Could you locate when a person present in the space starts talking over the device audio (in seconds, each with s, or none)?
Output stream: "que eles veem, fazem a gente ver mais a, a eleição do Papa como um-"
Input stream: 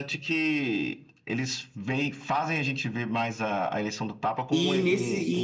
4.5 s